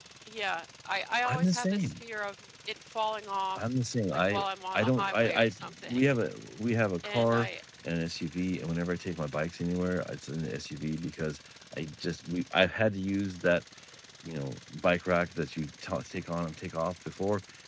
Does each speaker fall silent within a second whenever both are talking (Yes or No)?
No